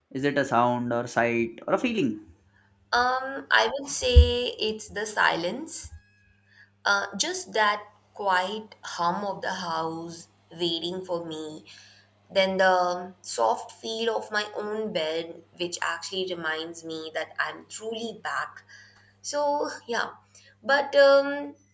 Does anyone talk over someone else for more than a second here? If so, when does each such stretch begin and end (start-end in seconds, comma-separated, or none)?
none